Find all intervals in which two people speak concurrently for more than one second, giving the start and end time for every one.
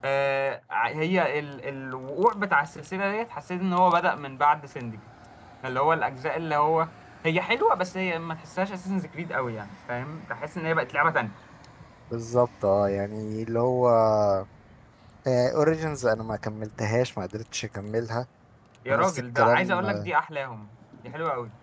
18.9-20.1

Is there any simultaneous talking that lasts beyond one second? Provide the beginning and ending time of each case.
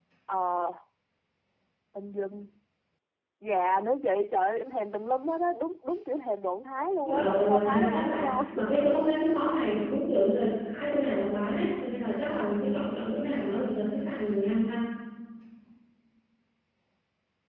7.1-8.4

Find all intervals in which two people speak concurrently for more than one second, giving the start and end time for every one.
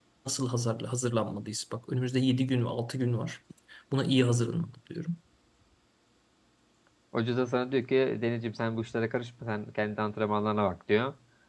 none

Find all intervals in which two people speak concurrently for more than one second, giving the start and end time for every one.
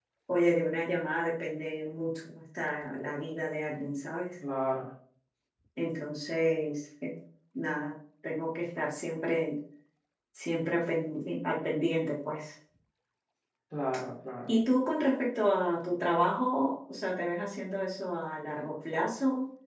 none

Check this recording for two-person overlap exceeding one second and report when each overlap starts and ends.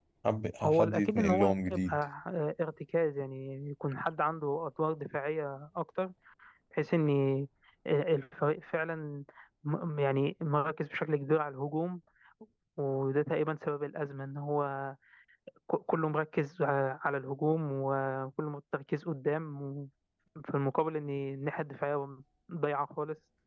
0.6-2.0

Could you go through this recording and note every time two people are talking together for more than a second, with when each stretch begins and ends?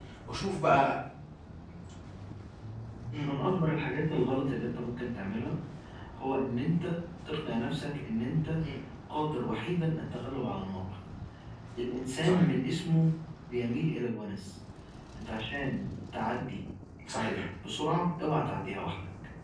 none

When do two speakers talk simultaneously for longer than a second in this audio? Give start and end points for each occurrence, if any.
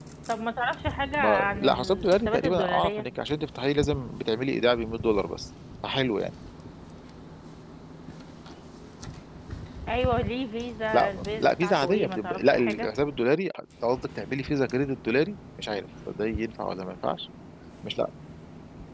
1.2-3.1, 10.9-12.9

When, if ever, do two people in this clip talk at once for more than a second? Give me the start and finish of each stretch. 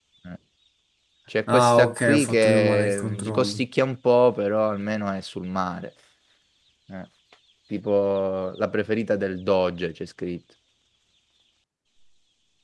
1.5-3.6

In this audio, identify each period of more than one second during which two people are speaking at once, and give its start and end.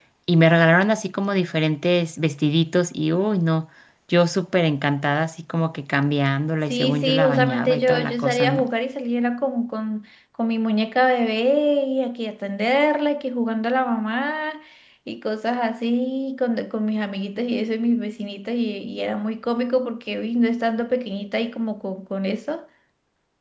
6.7-8.6

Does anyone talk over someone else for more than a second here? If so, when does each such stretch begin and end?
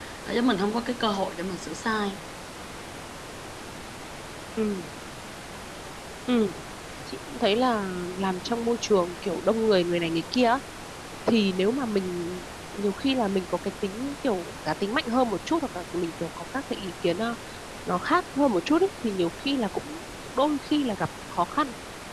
none

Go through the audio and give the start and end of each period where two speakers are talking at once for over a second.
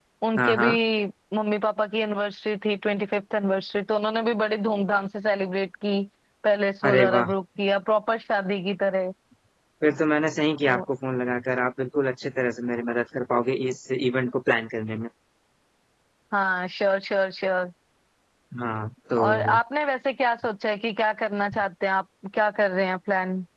none

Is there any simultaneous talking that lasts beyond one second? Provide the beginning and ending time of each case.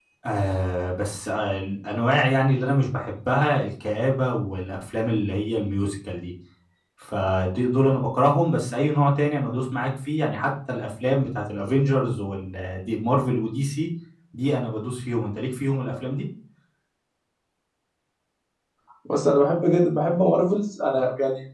none

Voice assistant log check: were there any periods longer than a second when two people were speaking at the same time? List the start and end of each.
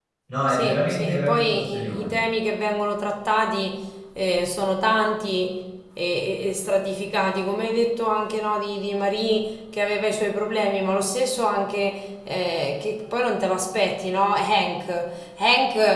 0.5-2.1

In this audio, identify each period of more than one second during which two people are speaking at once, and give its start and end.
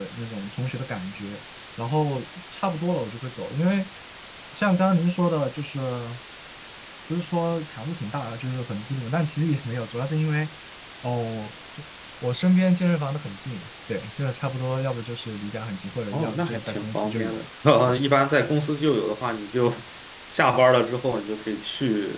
16.1-17.4

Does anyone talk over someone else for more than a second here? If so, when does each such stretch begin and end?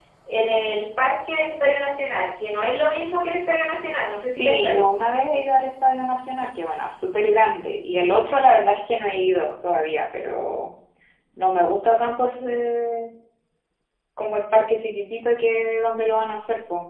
none

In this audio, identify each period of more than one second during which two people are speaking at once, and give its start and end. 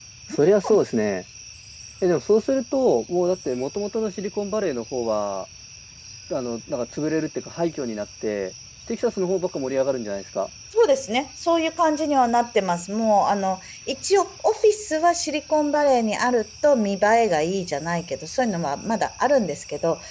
none

